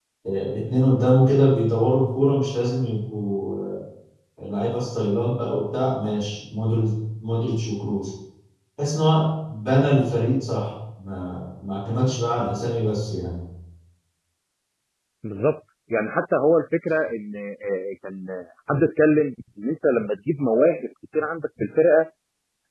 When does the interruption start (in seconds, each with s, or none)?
none